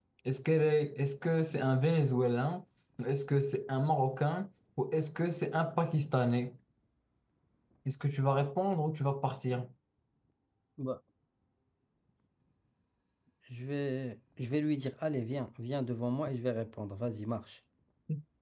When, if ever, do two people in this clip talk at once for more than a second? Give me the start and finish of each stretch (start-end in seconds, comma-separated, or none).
none